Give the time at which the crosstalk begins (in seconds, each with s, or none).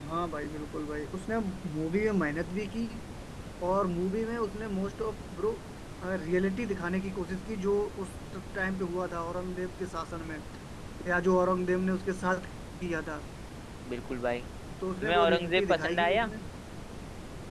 15.0 s